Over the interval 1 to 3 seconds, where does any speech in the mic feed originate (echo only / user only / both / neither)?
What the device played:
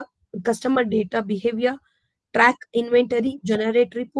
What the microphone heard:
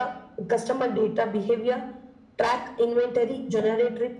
echo only